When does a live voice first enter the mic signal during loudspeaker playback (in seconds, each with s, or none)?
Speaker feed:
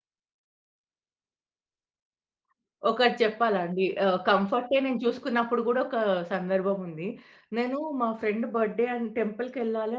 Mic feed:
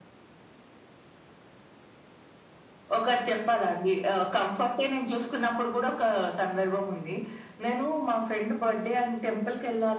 none